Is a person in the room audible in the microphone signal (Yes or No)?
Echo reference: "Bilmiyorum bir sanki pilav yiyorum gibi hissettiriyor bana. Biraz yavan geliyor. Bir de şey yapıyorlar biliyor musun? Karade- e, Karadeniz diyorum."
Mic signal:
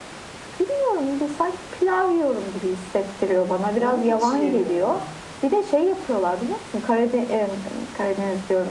Yes